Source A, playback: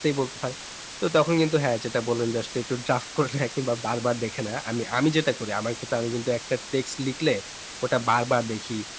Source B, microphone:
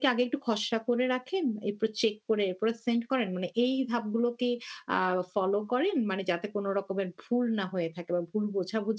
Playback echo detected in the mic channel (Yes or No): No